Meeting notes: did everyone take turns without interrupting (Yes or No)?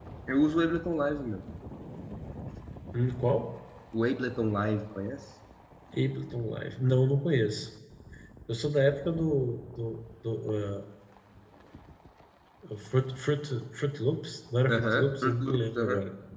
No